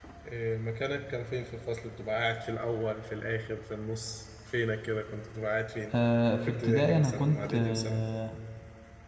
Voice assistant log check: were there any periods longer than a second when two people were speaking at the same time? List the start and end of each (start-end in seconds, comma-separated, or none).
6.5-8.1